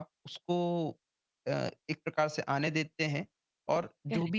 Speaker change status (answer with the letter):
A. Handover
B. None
B